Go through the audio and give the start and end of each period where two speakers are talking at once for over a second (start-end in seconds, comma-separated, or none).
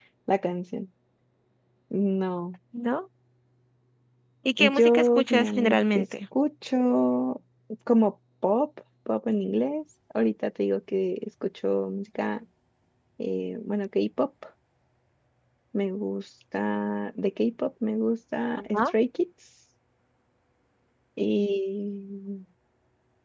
4.6-6.0